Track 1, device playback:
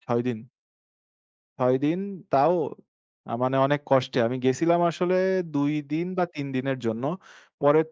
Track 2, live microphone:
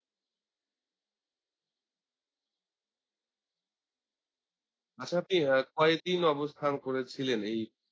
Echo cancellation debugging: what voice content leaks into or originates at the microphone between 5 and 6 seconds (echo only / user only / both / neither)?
user only